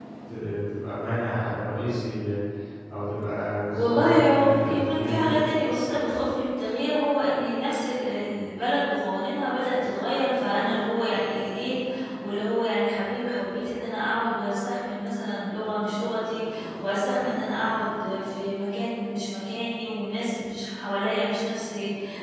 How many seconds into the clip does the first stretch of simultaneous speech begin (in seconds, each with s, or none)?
3.7 s